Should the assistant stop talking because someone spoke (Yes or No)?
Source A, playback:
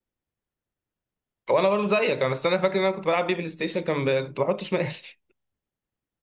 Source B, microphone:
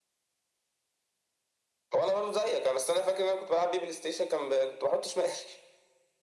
No